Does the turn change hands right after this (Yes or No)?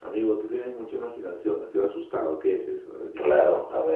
Yes